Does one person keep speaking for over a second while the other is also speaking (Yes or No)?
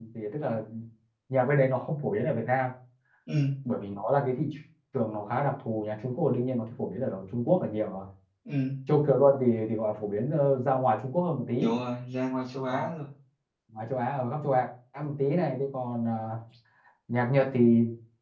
No